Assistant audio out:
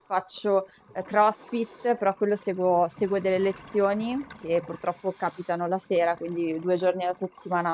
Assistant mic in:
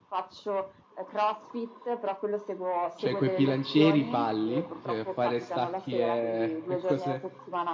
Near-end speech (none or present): present